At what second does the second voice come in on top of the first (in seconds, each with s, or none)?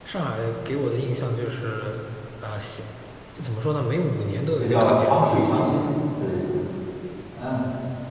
4.6 s